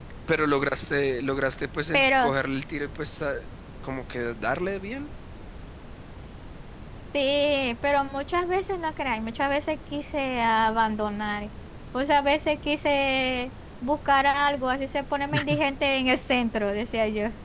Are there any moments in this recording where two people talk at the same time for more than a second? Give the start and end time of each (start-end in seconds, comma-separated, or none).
none